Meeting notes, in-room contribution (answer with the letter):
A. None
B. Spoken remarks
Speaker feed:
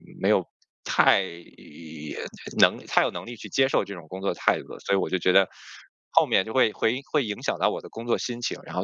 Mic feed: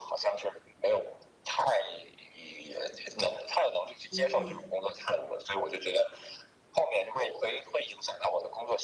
B